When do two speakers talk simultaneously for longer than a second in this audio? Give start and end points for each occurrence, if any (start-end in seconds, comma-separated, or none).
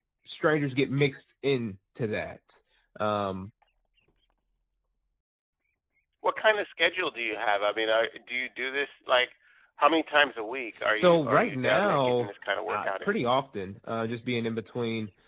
11.0-12.3